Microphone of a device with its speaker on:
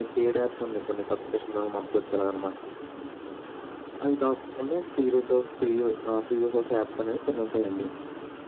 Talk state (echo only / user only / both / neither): echo only